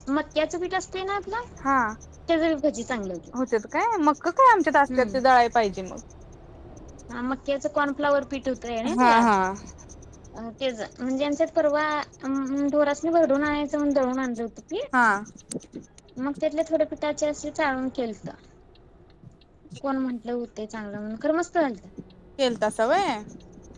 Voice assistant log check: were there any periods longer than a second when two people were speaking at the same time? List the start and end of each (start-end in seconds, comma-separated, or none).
none